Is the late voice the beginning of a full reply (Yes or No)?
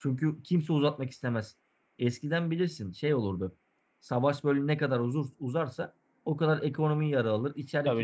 No